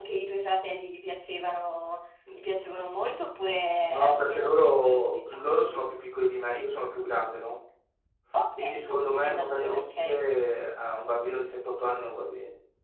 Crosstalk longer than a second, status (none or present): present